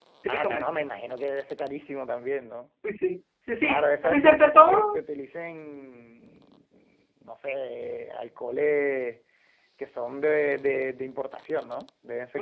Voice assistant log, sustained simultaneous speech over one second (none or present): present